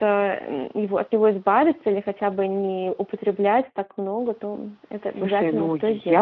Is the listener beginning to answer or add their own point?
Yes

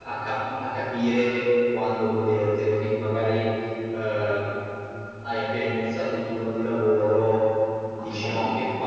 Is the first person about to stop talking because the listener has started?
No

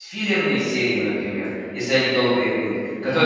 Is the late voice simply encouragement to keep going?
Yes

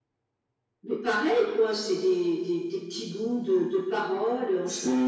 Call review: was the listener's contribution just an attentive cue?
No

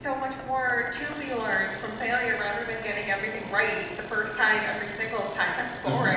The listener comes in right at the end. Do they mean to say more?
Yes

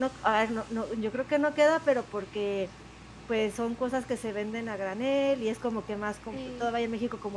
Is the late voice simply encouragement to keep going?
Yes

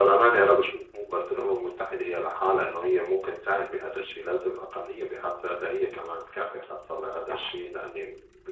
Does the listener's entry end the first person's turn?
No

